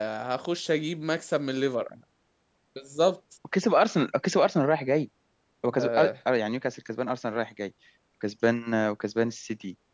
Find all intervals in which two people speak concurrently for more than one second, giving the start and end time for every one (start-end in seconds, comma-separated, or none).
none